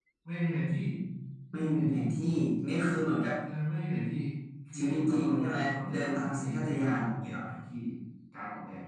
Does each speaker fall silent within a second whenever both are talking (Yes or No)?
No